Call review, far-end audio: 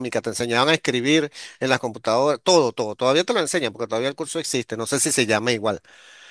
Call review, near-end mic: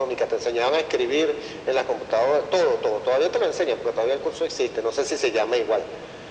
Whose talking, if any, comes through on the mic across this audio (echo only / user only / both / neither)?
echo only